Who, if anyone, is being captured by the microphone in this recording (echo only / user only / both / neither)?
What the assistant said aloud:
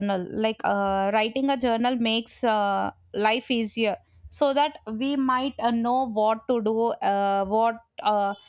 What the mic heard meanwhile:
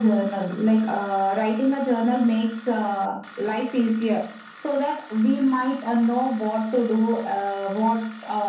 echo only